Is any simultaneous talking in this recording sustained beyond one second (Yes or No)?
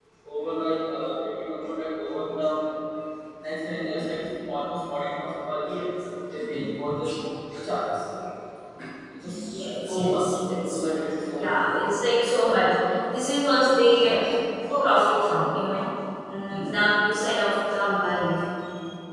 Yes